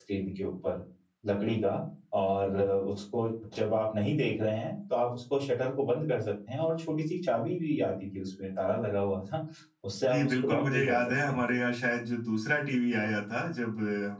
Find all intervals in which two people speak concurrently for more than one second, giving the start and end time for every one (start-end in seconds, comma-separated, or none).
10.1-11.4